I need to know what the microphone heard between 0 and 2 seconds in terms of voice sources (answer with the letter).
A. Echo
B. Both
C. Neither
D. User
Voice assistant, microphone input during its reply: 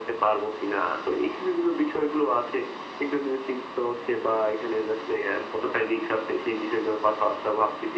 A